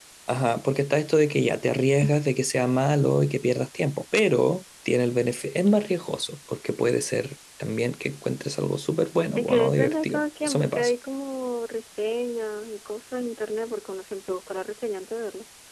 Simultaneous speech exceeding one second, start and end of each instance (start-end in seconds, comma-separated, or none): 9.3-10.9